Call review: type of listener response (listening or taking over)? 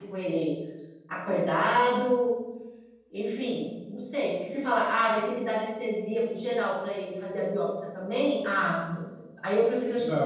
taking over